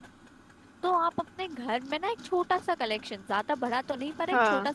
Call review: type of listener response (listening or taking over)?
listening